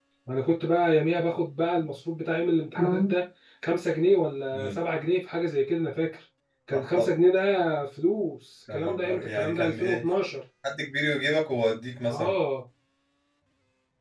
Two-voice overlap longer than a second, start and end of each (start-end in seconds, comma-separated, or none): 8.7-10.0